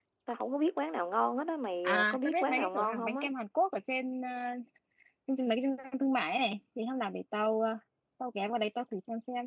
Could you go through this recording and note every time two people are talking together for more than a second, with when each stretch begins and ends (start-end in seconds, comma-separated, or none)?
1.8-3.2